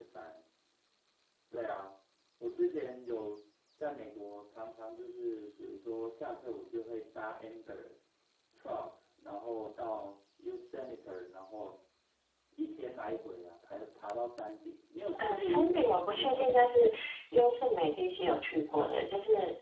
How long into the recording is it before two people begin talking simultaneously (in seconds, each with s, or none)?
15.2 s